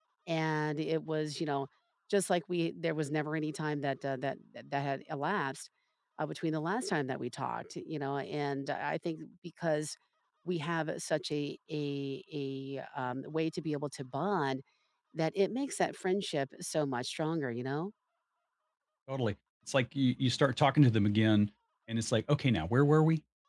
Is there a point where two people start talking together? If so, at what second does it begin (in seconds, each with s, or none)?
none